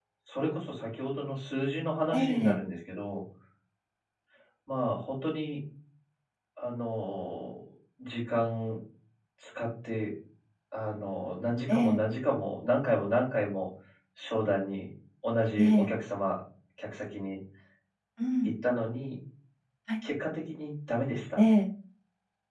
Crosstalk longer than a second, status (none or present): none